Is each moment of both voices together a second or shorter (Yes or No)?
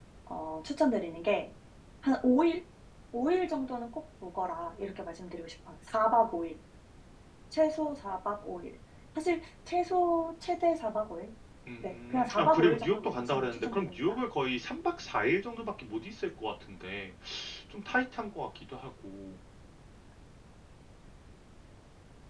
No